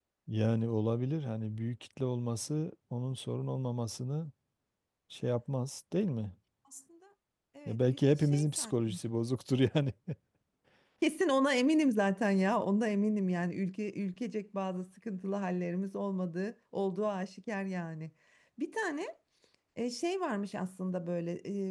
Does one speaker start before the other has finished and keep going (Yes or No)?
Yes